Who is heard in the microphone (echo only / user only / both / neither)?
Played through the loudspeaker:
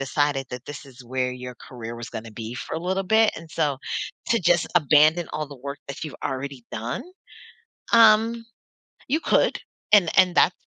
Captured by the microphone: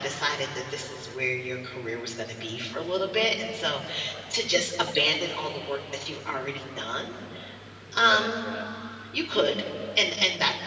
both